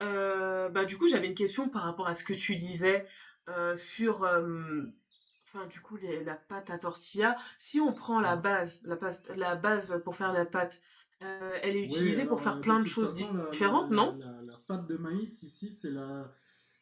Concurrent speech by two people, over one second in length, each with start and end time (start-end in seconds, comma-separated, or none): 11.8-14.1